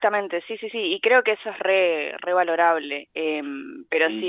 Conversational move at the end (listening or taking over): listening